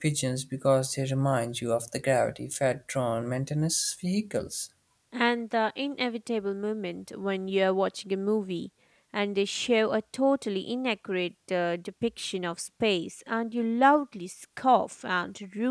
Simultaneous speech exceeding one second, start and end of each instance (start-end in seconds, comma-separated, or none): none